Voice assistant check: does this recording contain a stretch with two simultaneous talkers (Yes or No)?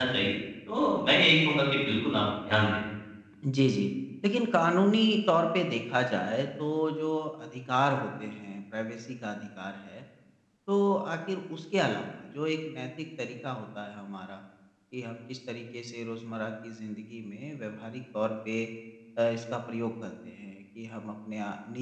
No